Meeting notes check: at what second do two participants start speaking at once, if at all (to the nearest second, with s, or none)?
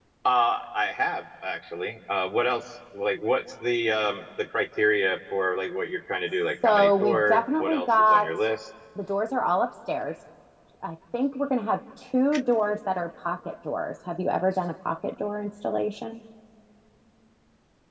7 s